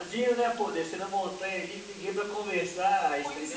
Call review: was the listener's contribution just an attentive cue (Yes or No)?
No